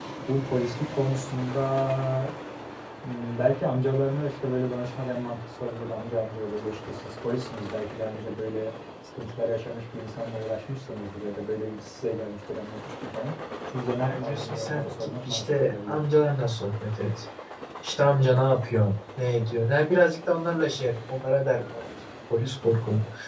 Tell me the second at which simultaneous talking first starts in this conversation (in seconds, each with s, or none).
14.0 s